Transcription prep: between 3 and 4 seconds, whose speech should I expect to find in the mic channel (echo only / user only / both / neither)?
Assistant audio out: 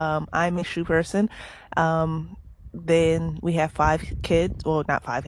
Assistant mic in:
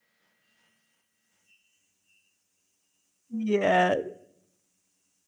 user only